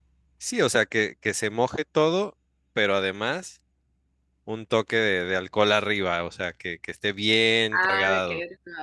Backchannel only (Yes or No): No